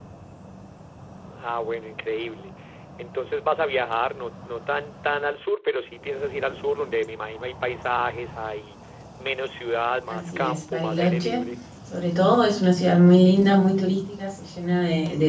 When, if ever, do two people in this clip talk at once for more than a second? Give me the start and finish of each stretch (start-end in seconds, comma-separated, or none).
10.1-11.4